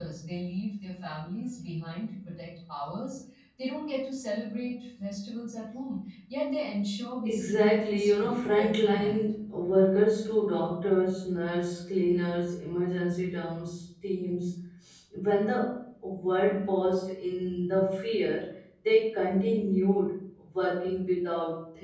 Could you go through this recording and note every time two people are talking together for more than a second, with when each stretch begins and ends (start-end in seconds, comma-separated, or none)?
7.2-9.2